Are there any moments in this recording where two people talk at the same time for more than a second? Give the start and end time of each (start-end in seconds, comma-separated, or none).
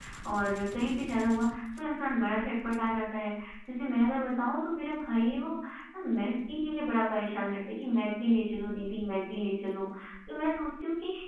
none